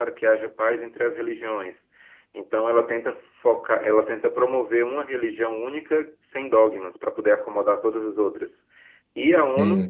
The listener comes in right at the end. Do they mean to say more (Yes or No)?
No